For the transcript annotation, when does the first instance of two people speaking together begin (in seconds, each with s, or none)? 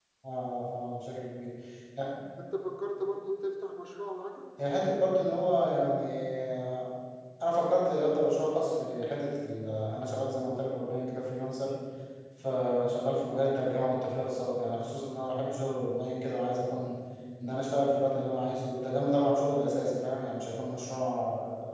none